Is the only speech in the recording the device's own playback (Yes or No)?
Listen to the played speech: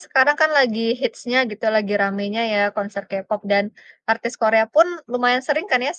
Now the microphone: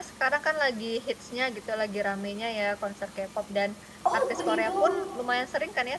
No